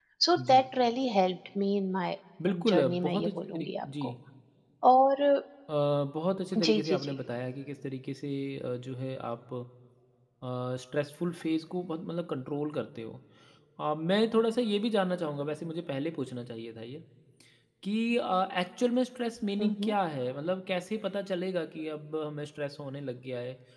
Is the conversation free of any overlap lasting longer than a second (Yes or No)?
No